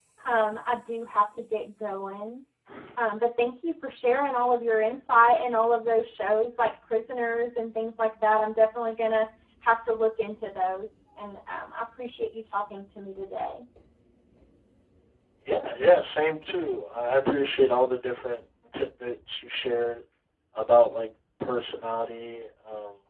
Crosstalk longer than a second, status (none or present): none